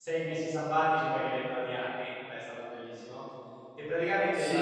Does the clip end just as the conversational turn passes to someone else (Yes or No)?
Yes